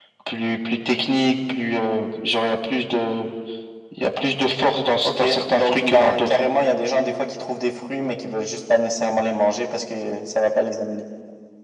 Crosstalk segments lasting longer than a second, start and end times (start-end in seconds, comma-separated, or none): 5.0-6.4